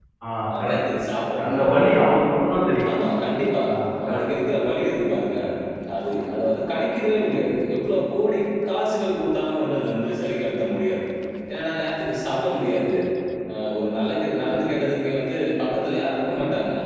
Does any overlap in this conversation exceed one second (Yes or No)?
No